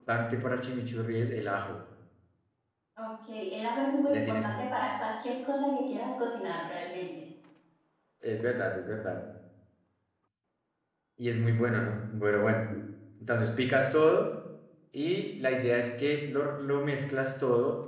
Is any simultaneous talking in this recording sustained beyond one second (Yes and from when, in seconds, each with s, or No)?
No